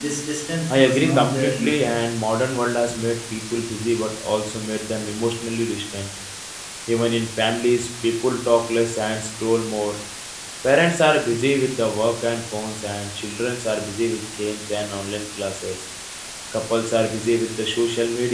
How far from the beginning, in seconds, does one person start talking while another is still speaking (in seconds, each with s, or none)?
0.7 s